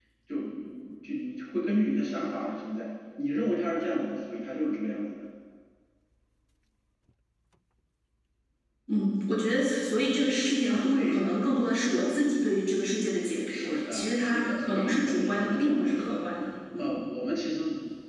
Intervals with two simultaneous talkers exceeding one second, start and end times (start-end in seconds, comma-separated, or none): 13.5-16.2